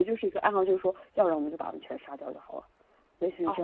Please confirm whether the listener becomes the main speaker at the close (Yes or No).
Yes